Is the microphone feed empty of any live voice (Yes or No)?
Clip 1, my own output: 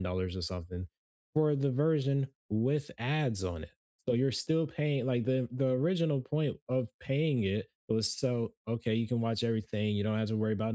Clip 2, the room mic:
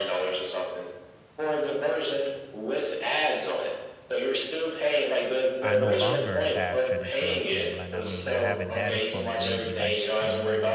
No